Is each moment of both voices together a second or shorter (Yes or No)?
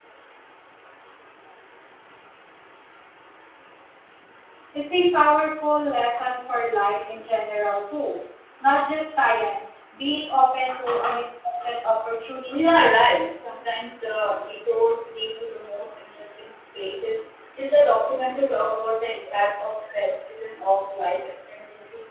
Yes